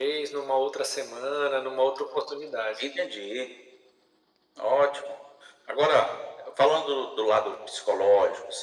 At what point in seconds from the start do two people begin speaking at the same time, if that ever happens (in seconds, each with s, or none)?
none